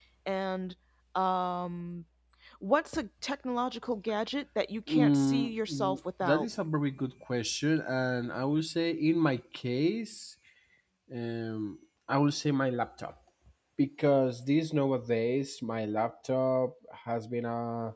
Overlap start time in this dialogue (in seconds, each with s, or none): 4.9 s